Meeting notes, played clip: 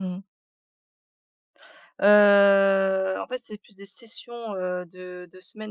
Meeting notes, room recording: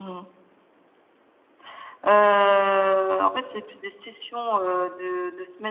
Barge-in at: none

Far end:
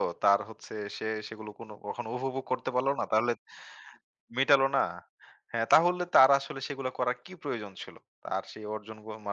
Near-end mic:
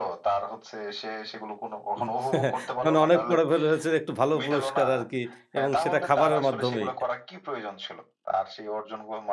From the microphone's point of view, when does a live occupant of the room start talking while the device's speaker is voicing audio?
2.0 s

